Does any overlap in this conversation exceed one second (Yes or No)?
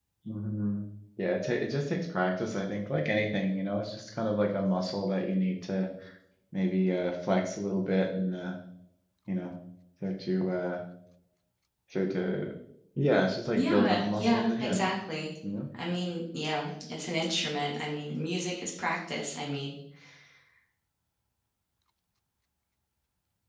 Yes